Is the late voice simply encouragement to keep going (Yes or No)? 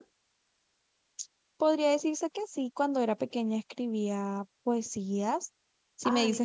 Yes